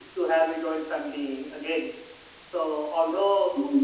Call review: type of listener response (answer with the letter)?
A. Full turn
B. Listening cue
B